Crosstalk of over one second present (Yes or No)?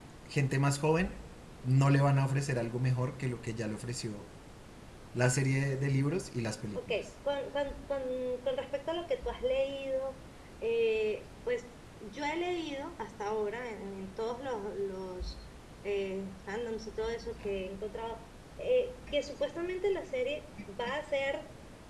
No